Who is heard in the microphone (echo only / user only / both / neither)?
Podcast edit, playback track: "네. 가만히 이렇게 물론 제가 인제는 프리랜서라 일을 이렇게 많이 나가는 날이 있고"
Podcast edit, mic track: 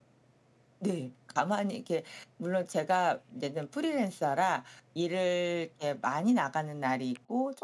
echo only